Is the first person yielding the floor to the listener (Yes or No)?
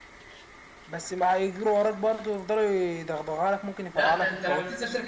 Yes